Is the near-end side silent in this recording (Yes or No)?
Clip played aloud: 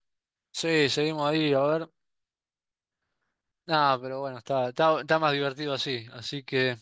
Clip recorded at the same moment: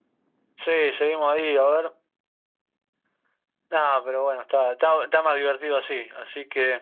Yes